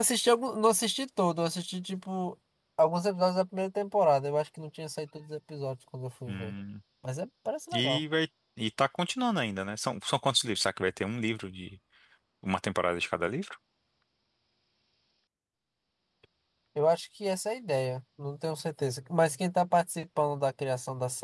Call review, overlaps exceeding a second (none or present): none